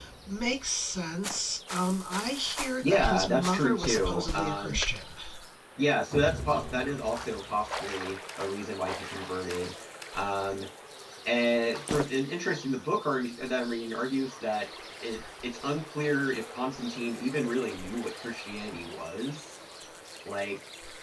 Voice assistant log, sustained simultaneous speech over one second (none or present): present